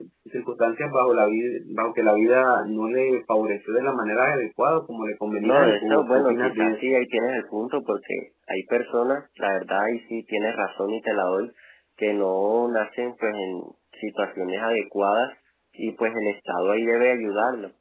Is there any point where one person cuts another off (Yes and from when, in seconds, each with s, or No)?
Yes, from 5.4 s